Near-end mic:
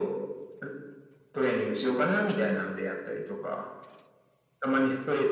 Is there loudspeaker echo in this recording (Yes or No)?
Yes